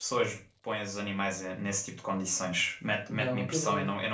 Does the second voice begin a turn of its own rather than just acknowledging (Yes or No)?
No